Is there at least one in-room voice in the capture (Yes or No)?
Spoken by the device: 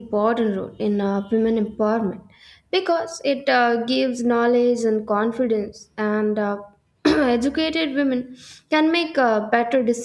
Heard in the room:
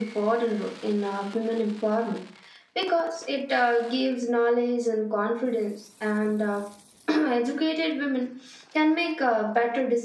No